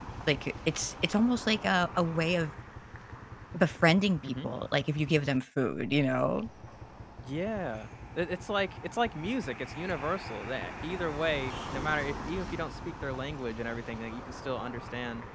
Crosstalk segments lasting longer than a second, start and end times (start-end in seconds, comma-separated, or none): none